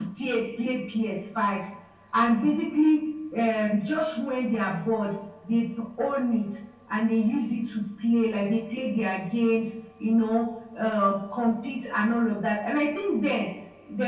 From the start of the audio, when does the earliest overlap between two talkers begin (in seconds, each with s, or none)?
none